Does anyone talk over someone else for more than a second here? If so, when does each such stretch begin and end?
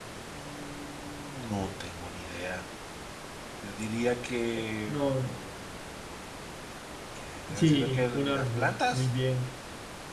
7.5-9.1

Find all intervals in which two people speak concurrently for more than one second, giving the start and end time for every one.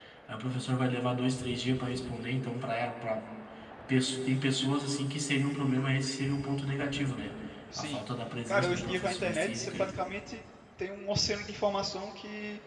8.5-10.0

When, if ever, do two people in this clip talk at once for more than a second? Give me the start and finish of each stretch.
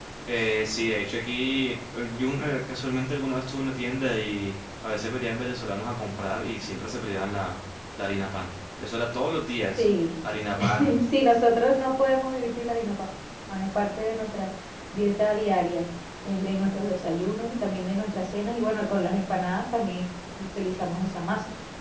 none

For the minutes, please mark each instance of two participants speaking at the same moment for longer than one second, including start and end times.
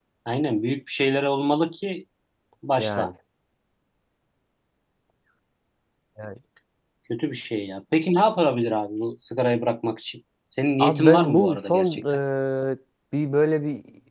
10.8-12.0

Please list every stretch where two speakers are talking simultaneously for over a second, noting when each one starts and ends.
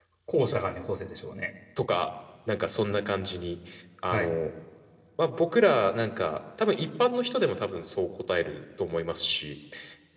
none

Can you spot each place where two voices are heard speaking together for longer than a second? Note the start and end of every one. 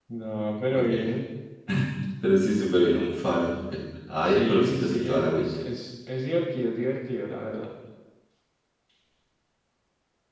4.3-5.5

